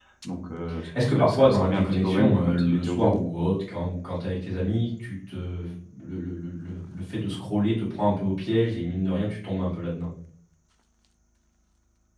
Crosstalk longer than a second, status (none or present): present